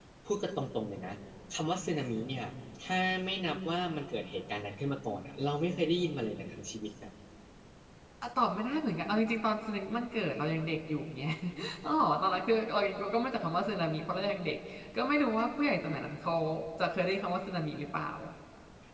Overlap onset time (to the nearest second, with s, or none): none